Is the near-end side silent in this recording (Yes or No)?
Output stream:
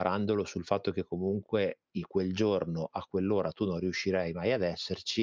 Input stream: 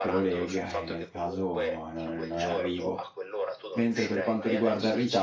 No